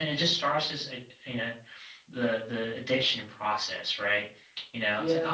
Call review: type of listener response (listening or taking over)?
listening